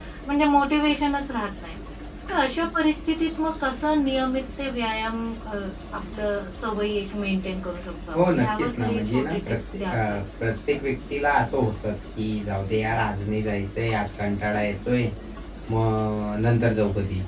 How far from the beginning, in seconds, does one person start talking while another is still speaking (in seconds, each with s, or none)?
8.1 s